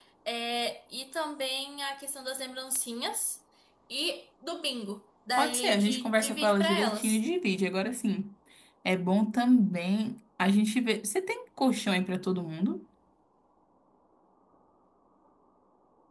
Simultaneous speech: Yes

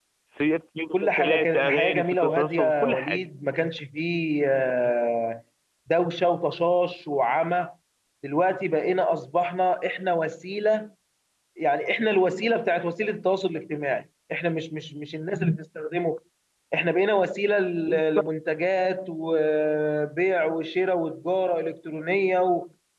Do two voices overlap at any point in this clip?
Yes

